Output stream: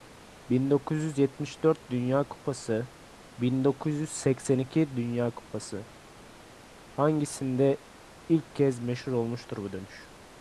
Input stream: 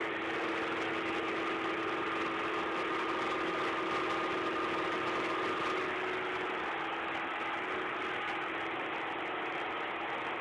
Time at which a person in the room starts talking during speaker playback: none

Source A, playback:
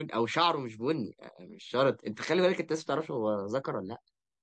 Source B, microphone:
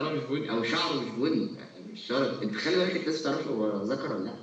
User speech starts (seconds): none

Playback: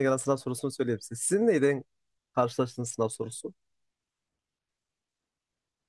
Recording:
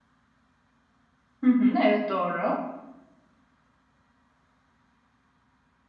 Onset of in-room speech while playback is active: 1.4 s

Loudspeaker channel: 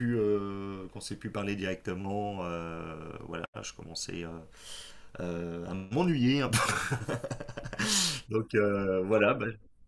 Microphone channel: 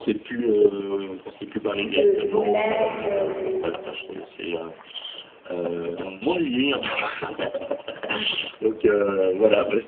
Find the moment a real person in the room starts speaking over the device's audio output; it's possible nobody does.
1.6 s

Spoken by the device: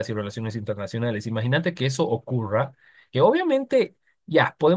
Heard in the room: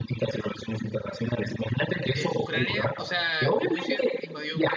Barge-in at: 2.1 s

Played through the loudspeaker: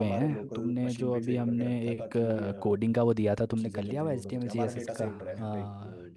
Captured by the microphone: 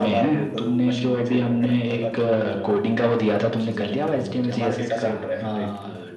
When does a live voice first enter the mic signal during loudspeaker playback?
none

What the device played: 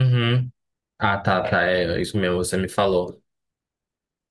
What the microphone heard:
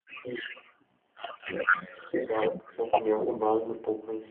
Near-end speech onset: 2.2 s

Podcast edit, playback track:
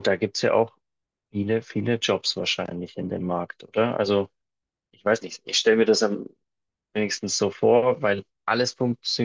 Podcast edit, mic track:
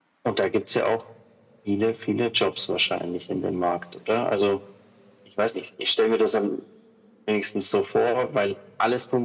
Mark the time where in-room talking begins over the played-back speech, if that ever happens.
none

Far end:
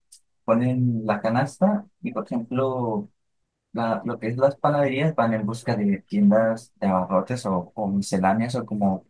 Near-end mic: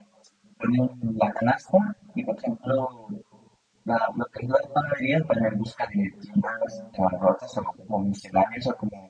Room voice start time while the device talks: none

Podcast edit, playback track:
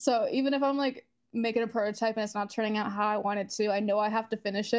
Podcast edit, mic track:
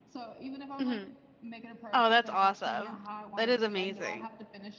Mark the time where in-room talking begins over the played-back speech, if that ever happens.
0.8 s

